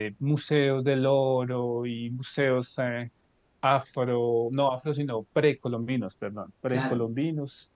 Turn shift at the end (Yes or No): No